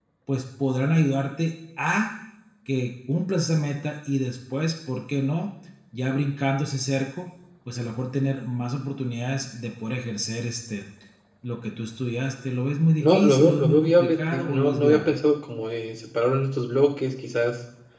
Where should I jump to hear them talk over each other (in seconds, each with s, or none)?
13.0 s